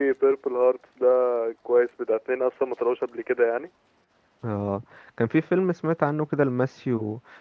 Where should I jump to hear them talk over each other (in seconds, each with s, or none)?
none